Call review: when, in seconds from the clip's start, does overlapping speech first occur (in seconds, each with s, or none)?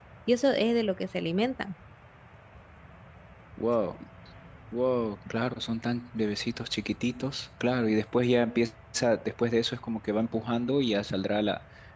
none